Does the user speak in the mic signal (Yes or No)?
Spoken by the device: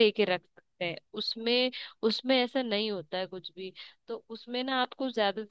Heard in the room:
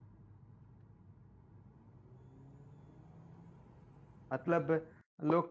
Yes